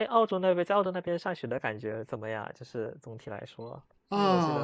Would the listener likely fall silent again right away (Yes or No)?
No